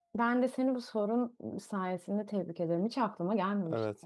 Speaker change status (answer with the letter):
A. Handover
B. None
A